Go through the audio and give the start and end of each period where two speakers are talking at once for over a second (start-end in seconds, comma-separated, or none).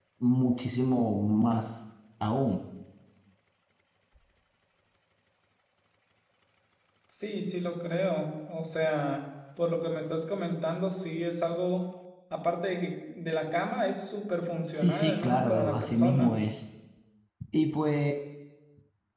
14.7-16.3